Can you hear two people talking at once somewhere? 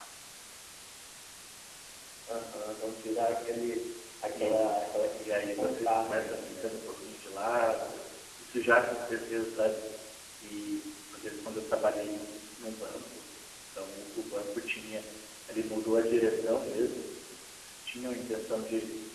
Yes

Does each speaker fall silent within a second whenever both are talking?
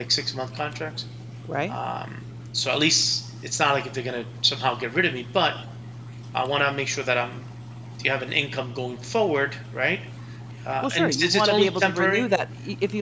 No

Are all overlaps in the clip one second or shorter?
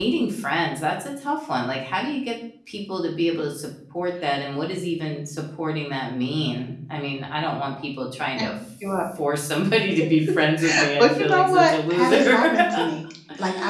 No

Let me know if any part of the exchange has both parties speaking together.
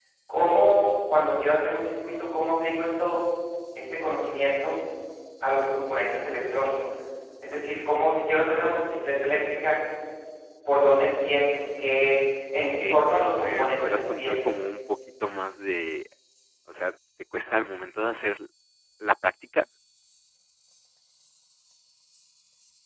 Yes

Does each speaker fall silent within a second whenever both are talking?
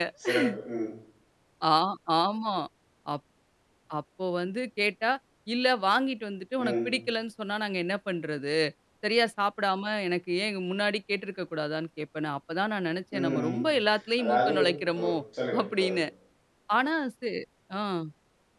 Yes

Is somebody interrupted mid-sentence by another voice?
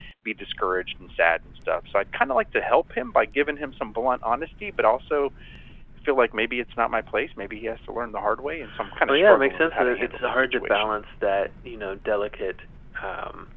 Yes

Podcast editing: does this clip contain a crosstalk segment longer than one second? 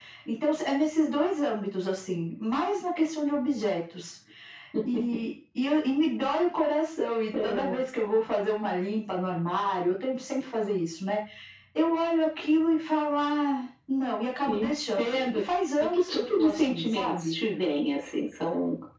Yes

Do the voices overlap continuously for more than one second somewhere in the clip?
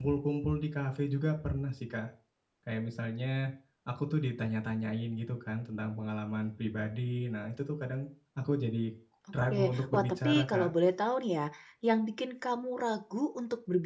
Yes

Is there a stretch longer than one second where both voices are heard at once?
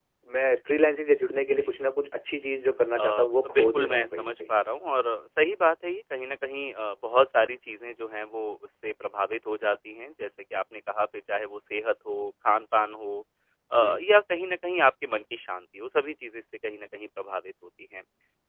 Yes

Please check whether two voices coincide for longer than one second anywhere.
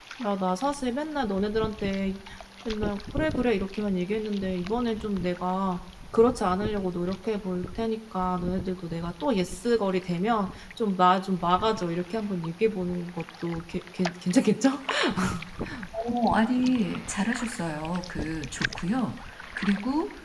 No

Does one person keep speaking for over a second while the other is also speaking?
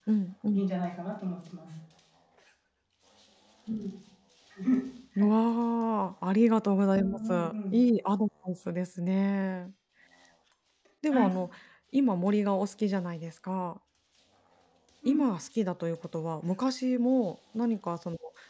No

